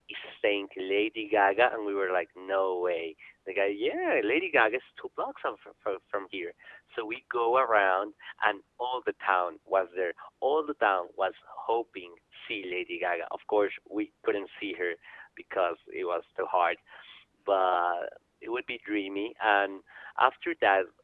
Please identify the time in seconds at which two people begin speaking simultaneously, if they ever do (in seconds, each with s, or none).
none